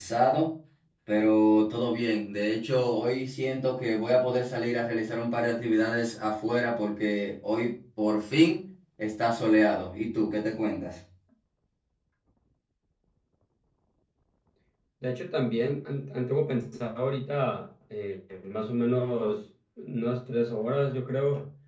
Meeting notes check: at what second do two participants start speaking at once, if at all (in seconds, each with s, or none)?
none